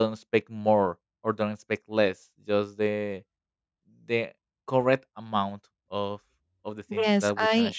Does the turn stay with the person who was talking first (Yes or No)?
No